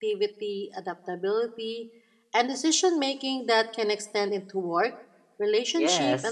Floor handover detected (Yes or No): Yes